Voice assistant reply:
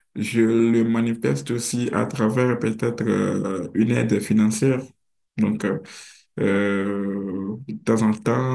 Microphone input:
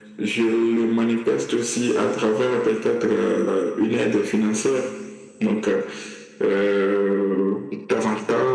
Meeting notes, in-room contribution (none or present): none